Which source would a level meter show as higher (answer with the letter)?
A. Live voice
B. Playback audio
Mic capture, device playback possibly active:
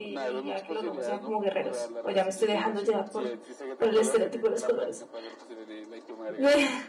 A